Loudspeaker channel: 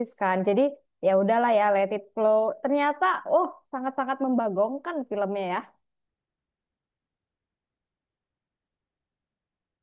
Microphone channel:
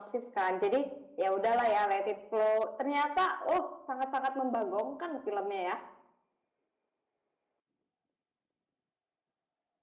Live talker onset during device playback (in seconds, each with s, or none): none